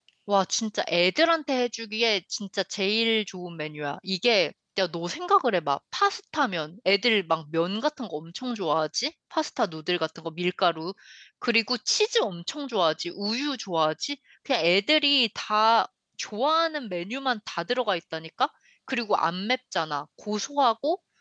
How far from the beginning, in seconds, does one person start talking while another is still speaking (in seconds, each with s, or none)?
none